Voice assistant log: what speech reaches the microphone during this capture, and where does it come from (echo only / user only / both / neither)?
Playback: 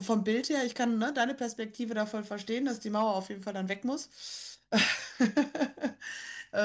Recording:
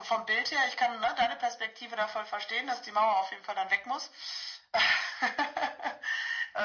echo only